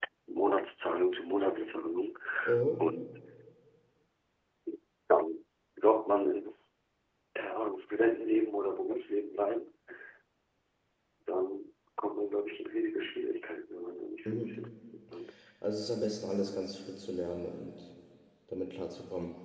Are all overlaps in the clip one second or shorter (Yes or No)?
Yes